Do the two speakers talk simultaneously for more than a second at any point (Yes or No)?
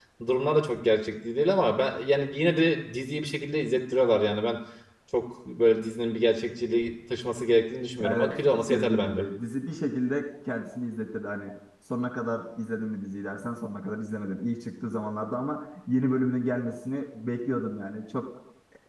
Yes